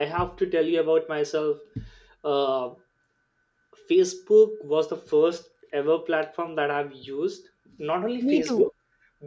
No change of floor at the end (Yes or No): Yes